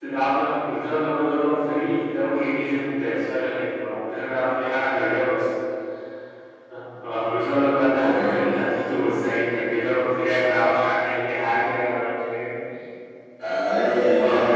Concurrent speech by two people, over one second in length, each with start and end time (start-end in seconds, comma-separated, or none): none